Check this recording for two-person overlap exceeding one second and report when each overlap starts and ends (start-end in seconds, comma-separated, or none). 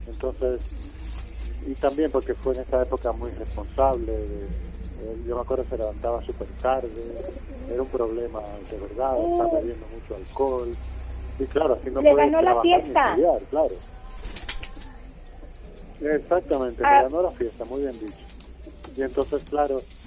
12.0-13.2